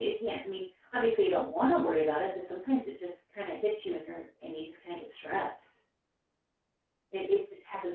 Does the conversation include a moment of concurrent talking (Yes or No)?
No